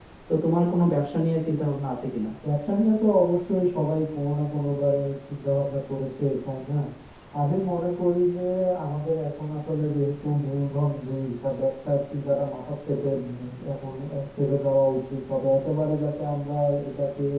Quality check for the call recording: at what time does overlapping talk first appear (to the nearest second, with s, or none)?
none